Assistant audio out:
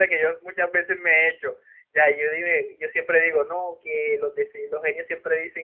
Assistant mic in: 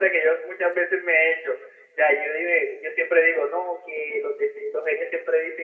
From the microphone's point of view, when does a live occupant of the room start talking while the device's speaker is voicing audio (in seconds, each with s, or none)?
none